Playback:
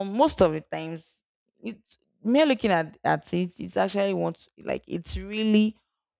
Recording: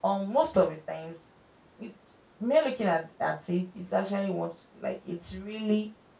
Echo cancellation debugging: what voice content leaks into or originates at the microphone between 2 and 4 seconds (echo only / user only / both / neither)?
echo only